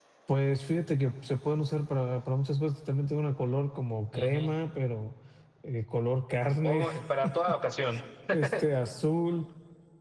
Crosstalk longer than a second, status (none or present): none